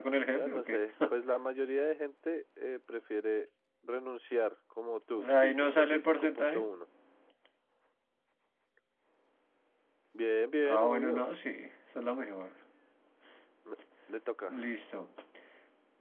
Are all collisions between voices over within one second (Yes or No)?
No